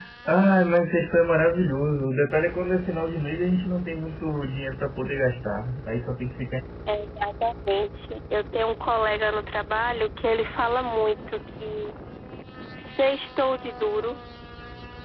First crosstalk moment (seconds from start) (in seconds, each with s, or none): none